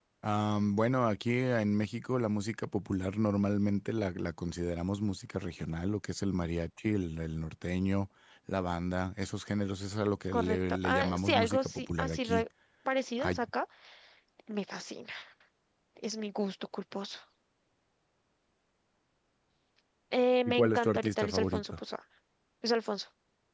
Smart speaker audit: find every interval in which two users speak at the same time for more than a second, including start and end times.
10.3-12.4, 20.5-21.8

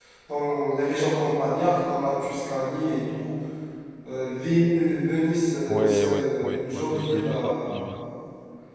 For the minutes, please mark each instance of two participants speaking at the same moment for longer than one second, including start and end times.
5.7-7.8

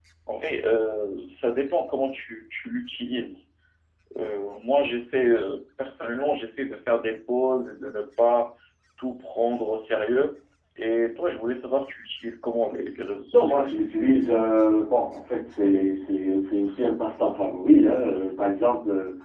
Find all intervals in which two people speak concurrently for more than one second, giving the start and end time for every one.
none

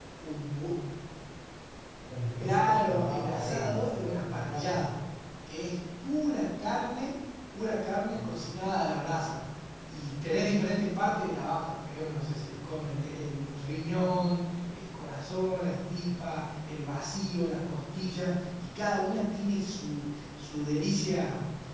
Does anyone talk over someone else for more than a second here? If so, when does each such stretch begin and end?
2.4-4.9

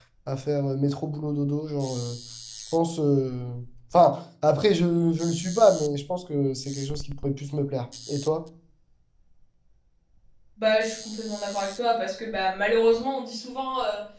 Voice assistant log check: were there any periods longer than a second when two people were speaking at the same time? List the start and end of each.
none

